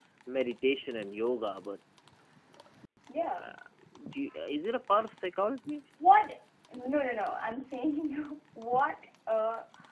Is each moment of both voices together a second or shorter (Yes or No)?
Yes